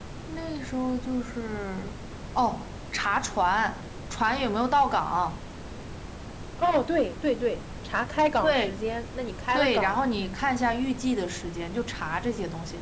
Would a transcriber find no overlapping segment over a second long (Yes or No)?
Yes